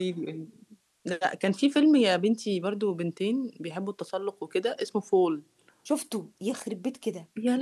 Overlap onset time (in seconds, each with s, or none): none